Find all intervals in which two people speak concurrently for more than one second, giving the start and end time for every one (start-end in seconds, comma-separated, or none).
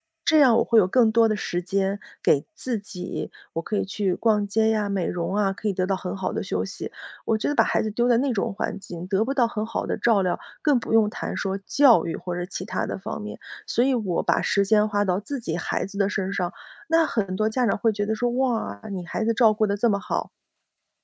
none